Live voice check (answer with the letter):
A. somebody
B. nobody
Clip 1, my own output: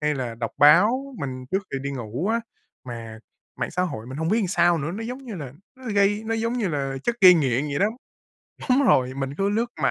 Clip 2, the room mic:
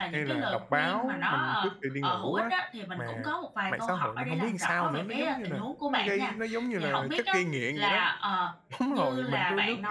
A